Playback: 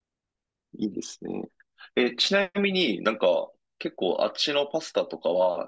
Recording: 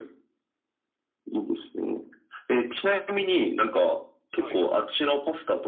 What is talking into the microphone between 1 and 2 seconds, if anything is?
echo only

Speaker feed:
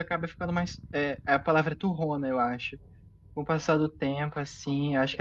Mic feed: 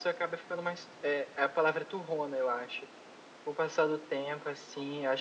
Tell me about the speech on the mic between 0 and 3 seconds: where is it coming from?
echo only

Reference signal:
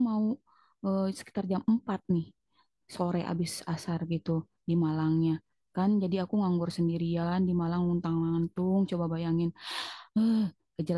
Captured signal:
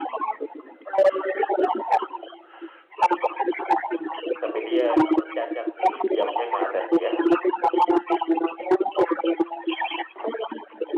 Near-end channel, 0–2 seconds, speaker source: echo only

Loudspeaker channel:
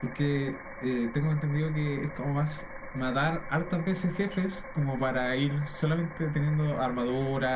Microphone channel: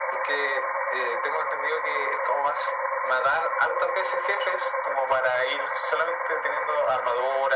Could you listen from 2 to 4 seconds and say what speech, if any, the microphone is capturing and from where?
echo only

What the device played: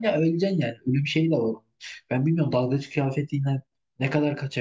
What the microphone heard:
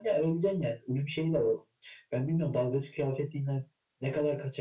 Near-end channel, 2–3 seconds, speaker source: echo only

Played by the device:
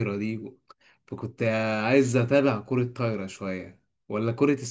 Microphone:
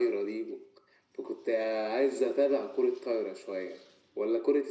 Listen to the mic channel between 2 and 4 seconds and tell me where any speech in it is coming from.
echo only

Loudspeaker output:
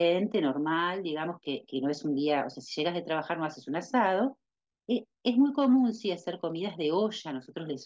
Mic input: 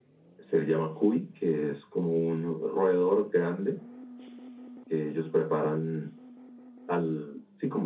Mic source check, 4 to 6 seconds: user only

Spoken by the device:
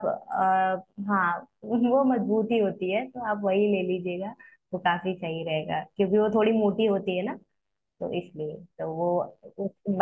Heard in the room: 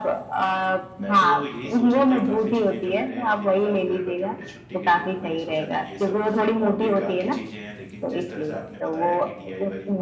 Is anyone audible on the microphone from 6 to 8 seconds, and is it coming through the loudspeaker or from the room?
both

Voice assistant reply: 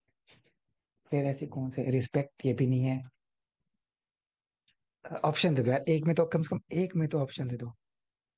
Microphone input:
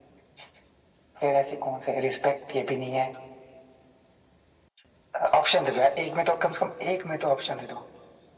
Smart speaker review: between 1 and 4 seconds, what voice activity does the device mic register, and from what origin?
echo only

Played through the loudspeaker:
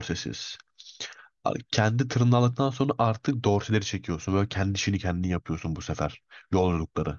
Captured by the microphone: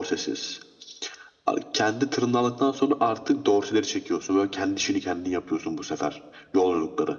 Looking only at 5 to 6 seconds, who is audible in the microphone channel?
echo only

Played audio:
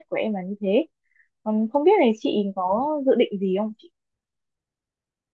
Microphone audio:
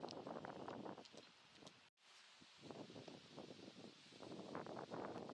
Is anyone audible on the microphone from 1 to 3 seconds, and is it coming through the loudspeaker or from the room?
neither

